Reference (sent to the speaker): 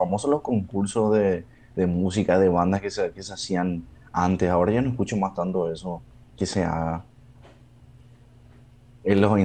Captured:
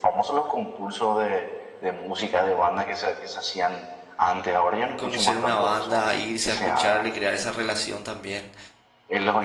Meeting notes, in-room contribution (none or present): present